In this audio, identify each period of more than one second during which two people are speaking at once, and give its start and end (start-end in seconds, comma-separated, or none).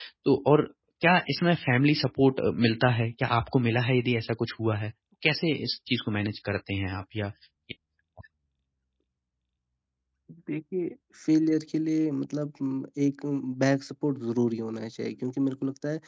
none